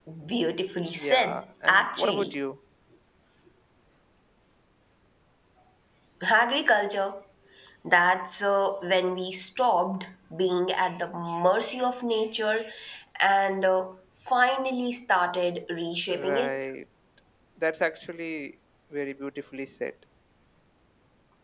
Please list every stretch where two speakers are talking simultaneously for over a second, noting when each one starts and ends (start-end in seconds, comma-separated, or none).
1.0-2.3